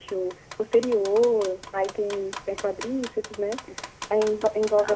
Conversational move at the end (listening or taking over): listening